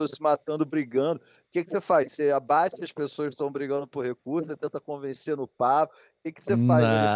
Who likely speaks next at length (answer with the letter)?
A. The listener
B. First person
B